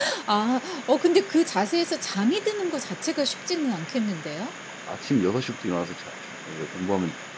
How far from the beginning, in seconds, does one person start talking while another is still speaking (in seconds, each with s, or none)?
none